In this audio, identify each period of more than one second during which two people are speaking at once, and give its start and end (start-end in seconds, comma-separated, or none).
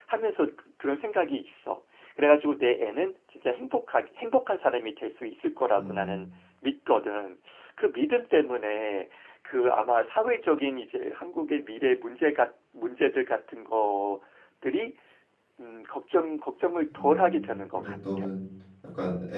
16.9-18.3